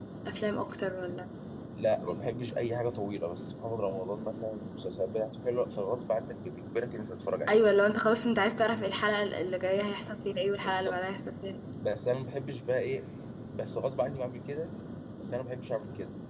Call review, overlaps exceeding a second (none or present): none